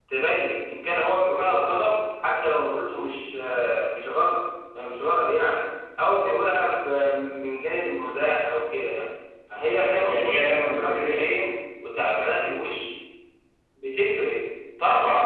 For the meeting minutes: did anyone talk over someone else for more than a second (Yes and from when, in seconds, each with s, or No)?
Yes, from 9.8 s